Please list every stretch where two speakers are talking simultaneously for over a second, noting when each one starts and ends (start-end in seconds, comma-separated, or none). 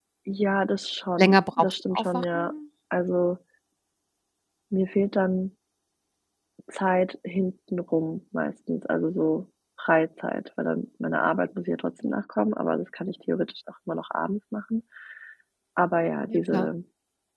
1.2-2.5